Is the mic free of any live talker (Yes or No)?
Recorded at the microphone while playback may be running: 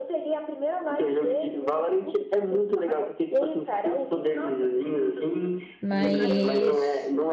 No